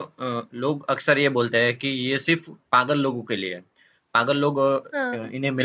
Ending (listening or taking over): listening